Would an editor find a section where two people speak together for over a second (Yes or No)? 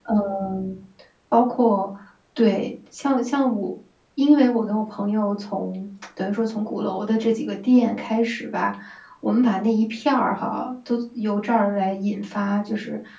No